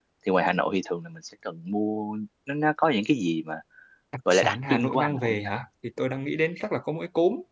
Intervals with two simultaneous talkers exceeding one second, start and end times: 4.3-5.5

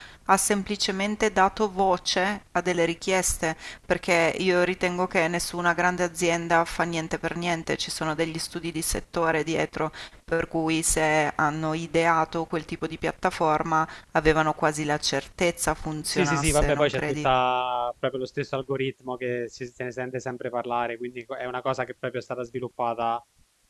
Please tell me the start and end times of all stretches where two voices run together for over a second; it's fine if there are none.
16.1-17.3

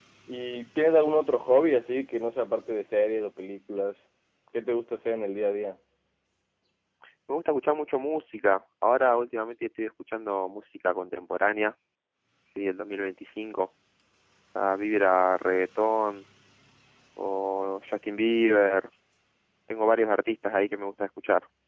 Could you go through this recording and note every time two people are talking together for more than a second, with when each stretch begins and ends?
none

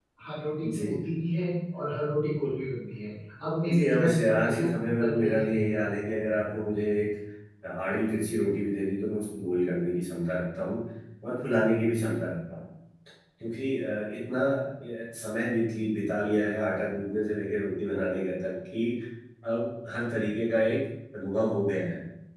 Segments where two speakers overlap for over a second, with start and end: 3.7-5.7

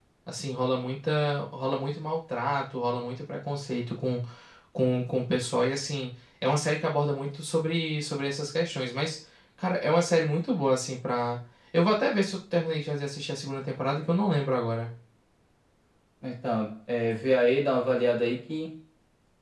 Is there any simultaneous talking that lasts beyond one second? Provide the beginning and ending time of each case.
none

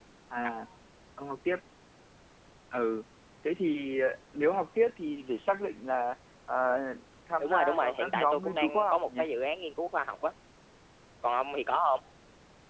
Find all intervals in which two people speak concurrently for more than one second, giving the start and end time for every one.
7.4-9.2

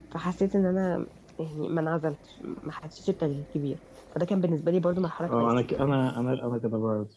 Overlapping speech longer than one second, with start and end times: none

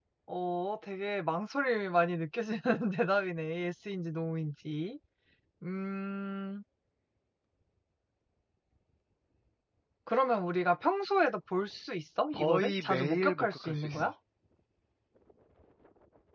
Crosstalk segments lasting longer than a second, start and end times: 12.3-14.1

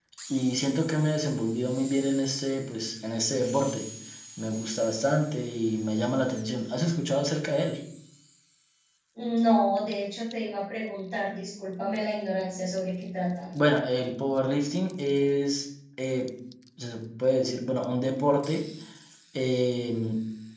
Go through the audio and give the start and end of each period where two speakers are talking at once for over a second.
none

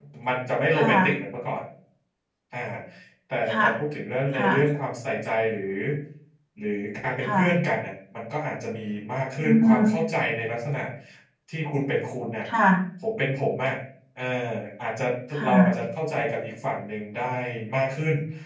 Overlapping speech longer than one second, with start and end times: none

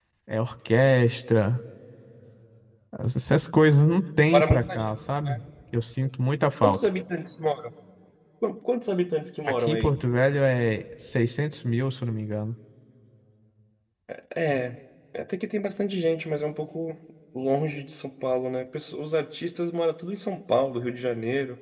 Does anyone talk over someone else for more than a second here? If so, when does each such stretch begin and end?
none

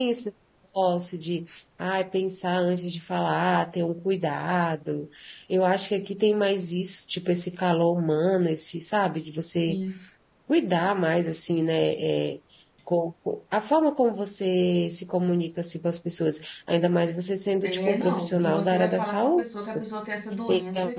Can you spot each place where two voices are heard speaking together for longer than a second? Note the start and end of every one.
17.6-19.4

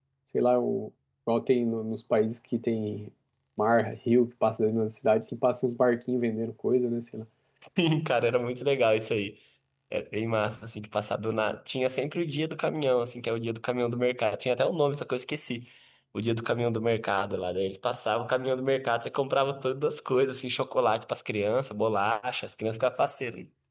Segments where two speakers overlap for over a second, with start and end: none

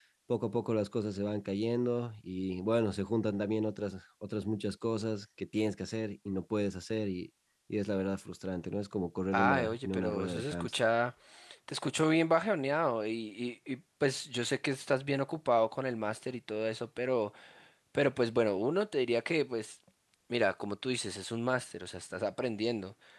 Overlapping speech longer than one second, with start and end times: 9.3-10.7

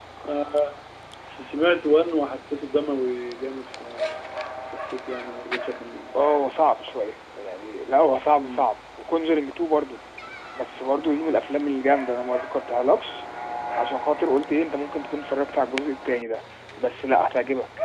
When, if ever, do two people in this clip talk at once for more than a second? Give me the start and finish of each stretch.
none

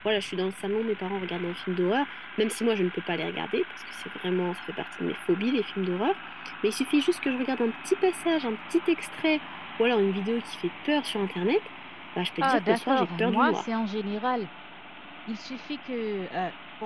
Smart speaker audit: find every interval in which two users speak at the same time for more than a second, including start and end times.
12.4-13.6

